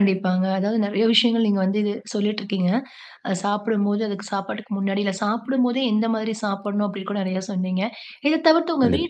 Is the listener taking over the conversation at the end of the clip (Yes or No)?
No